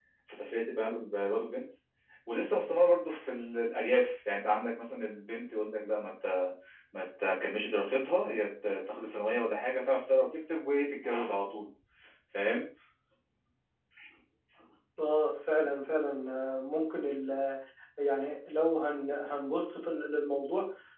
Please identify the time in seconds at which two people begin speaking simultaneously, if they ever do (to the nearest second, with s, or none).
none